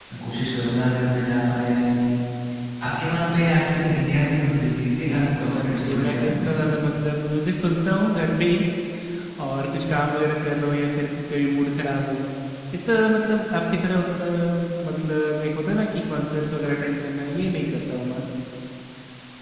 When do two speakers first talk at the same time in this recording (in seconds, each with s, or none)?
4.9 s